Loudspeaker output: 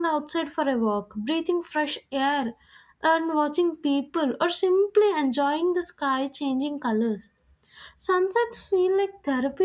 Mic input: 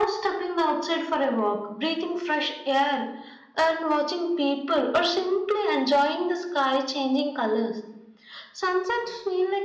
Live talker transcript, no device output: none

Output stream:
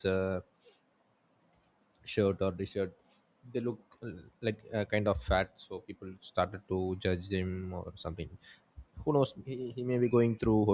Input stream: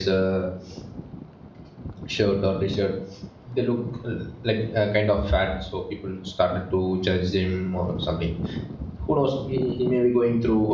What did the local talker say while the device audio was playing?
none

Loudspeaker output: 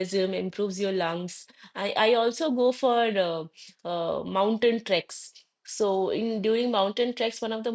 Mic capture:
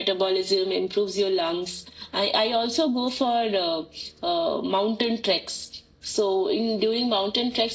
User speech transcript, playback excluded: none

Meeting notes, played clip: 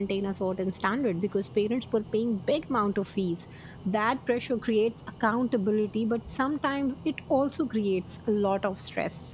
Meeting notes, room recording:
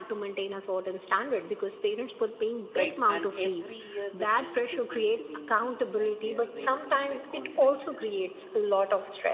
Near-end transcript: right and every year the fees is going to be increased like they are raising bitcoin prices

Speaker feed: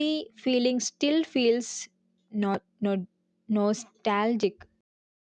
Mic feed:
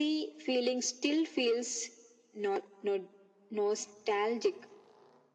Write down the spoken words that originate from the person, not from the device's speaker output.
none

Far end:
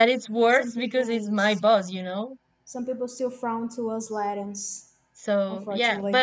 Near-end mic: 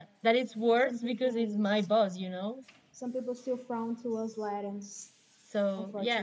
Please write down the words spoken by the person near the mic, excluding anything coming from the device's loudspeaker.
none

